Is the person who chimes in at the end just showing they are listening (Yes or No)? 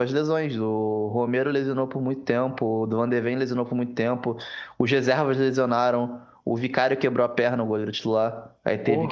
Yes